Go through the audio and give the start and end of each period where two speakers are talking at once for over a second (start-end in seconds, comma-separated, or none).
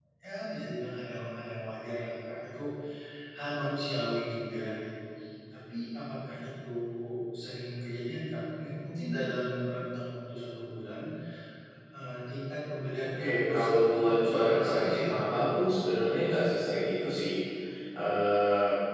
13.2-15.1